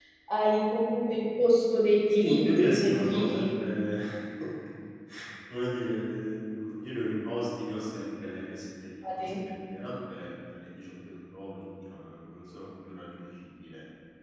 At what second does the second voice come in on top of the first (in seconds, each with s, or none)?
2.1 s